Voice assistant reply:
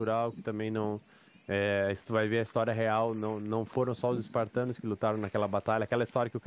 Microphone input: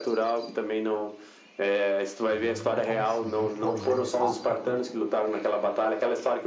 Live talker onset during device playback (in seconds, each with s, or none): 2.3 s